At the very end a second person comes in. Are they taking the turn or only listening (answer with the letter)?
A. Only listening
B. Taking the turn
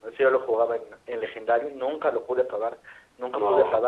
A